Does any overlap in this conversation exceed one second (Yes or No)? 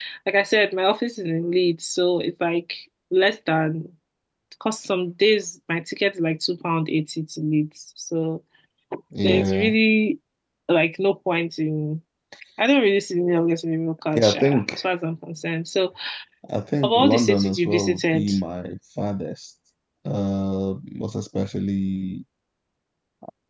Yes